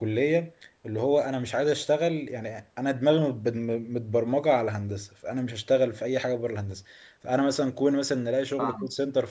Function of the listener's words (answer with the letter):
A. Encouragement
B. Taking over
A